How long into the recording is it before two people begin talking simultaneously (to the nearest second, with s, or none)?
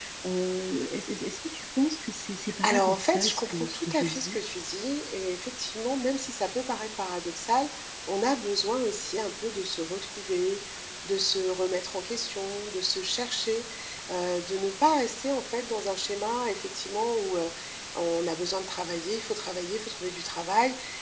3 s